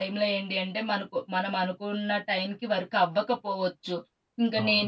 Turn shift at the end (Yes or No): No